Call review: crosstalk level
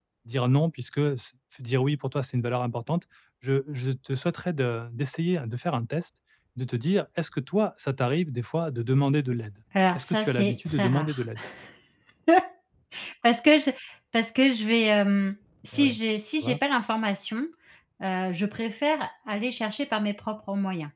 present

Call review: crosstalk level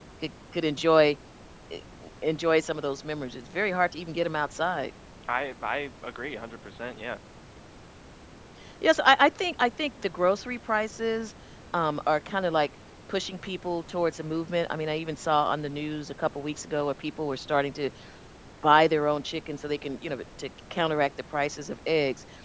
none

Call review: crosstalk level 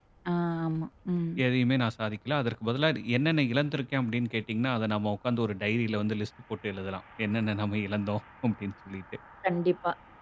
none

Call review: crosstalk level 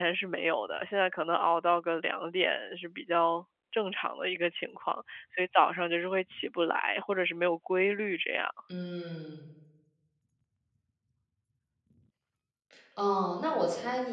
none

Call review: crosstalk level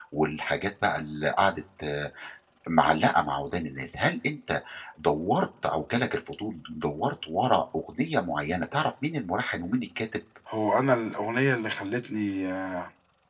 none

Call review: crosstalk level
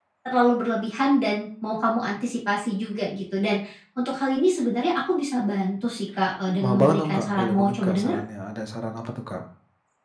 present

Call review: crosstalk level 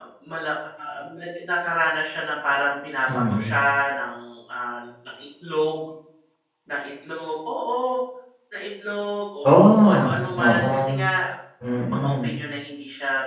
present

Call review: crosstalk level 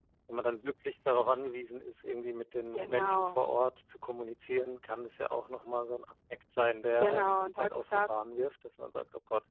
present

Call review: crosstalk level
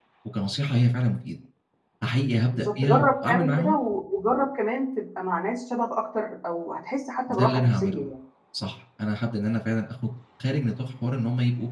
present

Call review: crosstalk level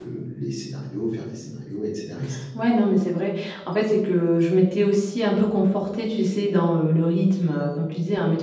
none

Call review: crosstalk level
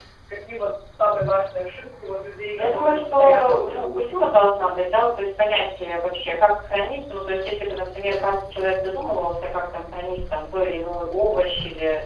present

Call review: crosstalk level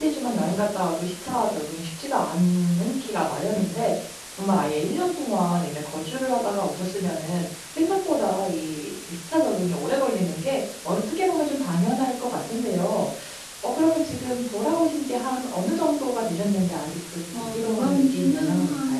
present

